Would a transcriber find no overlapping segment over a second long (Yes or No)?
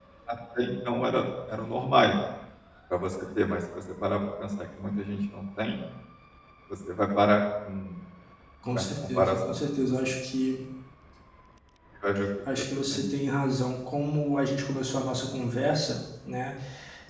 No